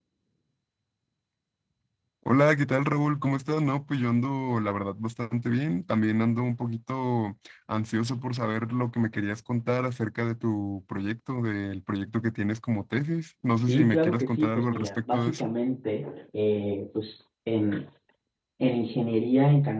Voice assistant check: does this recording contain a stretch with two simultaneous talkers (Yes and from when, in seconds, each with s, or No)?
Yes, from 13.7 s